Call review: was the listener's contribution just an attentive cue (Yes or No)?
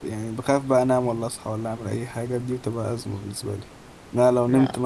Yes